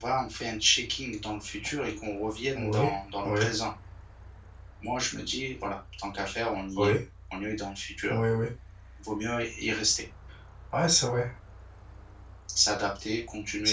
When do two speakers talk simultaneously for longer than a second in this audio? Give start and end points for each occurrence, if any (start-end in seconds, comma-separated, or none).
none